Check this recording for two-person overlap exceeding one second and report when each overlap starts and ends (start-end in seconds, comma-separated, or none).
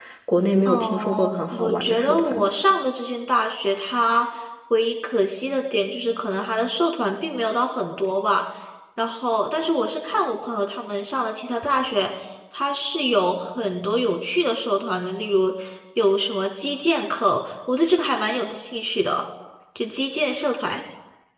0.7-2.5